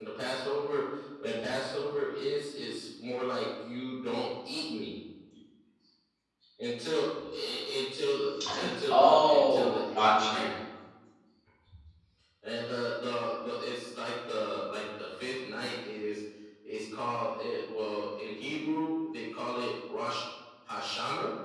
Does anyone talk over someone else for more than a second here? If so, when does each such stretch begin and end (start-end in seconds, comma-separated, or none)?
8.9-10.5